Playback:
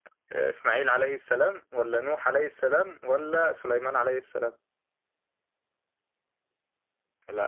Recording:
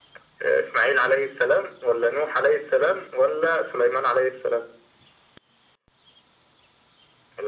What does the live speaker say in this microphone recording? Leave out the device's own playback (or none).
none